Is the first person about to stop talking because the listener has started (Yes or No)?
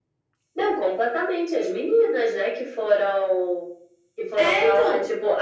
No